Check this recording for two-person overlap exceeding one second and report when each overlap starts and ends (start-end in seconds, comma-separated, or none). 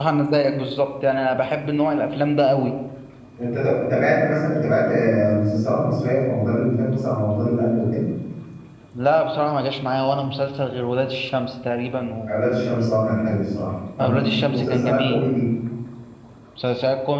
14.0-15.2